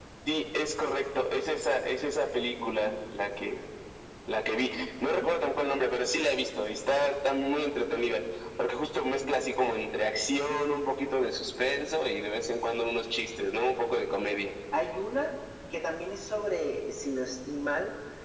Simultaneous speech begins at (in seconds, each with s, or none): none